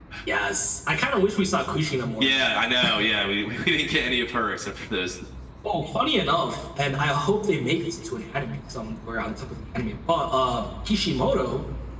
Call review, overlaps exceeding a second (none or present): none